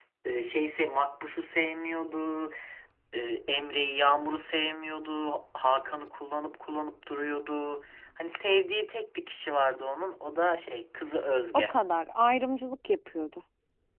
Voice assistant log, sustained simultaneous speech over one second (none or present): none